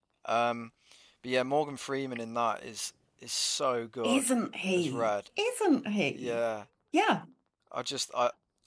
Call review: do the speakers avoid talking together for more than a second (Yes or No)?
Yes